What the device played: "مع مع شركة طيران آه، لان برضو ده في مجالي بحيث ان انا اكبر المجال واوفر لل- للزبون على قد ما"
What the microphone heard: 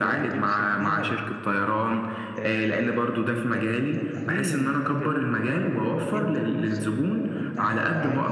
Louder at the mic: echo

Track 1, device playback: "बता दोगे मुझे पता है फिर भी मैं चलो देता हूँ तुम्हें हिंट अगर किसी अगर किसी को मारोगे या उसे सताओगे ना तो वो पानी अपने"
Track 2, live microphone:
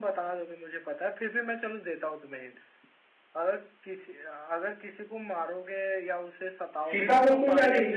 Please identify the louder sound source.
user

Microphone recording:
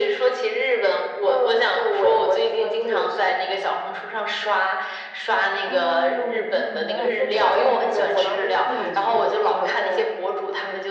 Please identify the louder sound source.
echo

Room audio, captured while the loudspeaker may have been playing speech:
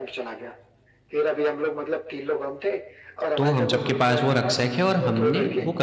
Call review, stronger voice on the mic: user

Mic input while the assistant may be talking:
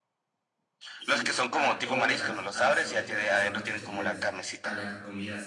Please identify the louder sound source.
echo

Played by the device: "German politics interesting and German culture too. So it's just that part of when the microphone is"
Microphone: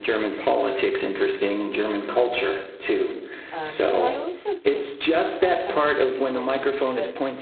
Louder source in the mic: echo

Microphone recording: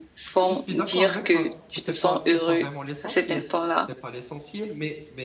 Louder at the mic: echo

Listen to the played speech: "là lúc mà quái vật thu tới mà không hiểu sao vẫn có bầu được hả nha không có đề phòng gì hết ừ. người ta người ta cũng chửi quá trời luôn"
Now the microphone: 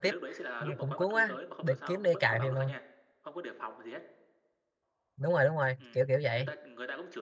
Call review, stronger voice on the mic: user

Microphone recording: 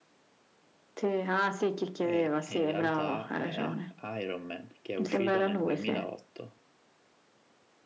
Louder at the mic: echo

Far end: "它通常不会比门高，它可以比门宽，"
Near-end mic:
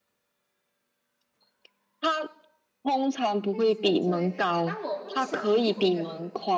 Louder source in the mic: echo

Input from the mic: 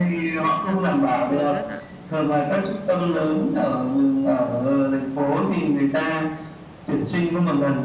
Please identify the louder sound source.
echo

